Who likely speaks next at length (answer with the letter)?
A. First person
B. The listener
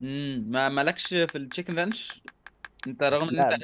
A